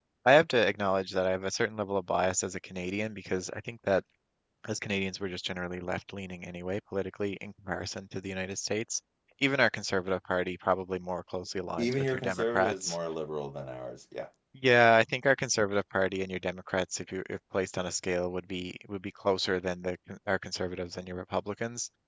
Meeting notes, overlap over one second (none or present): present